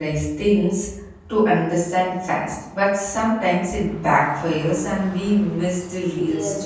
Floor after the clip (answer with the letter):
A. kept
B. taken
B